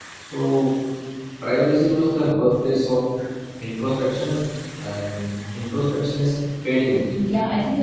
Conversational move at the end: taking over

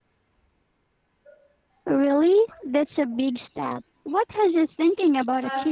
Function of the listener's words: taking over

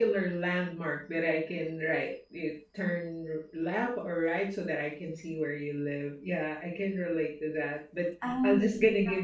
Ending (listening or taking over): listening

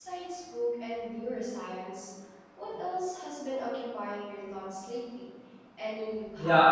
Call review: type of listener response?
taking over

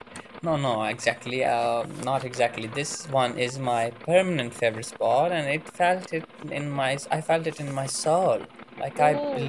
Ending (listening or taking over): listening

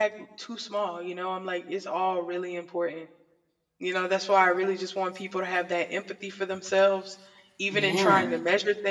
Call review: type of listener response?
listening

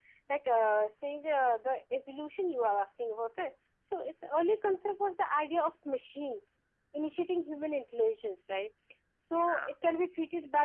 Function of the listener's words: listening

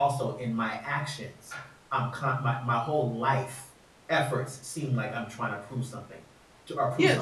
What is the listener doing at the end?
taking over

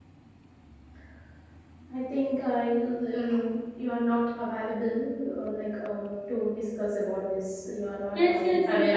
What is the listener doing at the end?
taking over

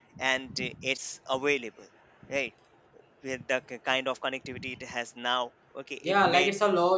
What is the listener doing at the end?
taking over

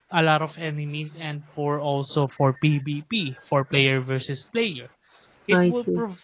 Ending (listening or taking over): listening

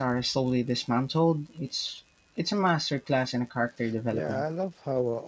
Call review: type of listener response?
taking over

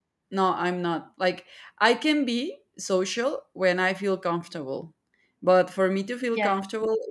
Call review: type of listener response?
listening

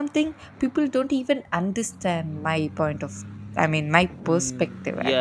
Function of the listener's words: taking over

